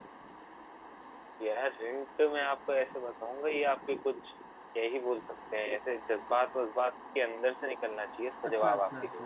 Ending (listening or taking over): taking over